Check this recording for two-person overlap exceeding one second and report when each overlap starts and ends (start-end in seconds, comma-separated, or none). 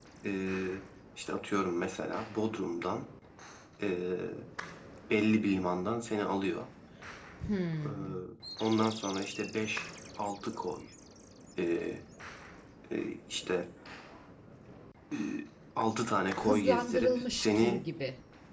16.4-17.8